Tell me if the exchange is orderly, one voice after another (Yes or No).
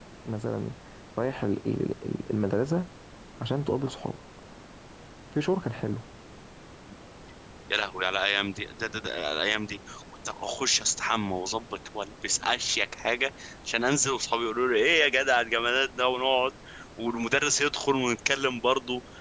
Yes